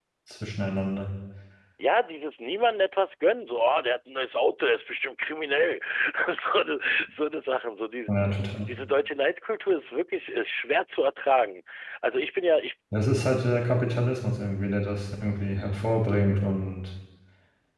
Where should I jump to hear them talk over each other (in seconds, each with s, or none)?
none